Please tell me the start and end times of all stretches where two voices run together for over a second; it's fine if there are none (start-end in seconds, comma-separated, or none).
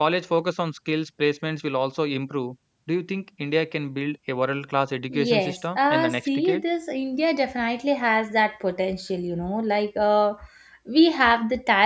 5.1-6.6